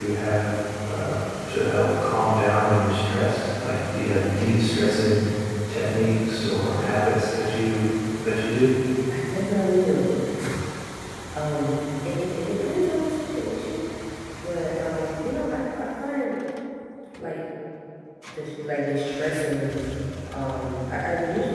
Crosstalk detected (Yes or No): No